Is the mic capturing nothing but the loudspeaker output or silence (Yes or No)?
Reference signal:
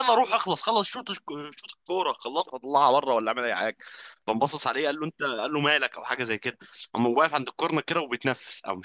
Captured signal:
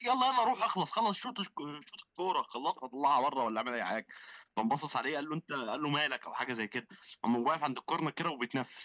Yes